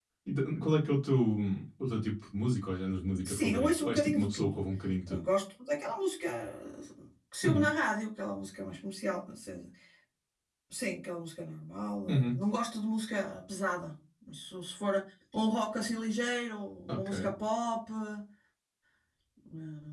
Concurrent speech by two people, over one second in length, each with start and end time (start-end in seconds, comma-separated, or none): 3.3-4.6